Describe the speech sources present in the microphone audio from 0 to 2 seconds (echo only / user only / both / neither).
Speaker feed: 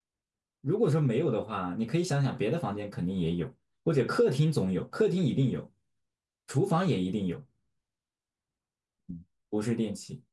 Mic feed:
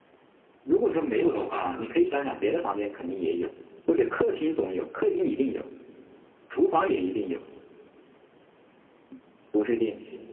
echo only